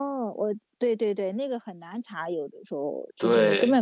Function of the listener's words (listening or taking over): listening